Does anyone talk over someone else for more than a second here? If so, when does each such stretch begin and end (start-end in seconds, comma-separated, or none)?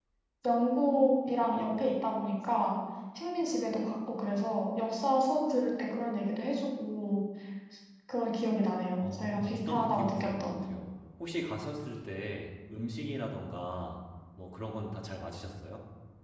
9.0-10.6